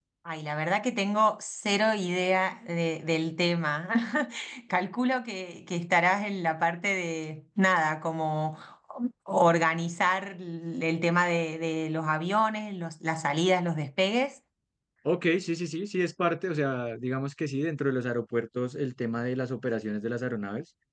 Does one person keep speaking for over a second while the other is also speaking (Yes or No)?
No